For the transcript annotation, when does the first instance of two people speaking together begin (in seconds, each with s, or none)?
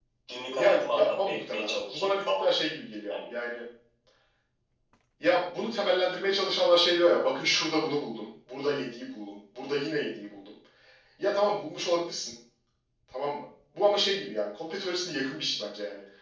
0.5 s